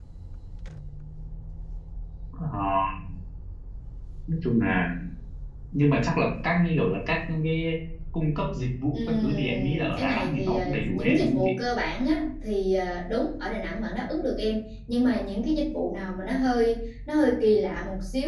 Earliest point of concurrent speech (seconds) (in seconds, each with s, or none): 8.9 s